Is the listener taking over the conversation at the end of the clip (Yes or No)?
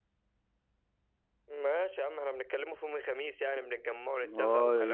Yes